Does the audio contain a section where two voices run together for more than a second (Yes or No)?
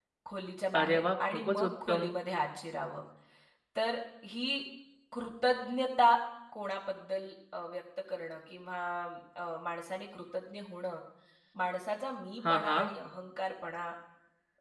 Yes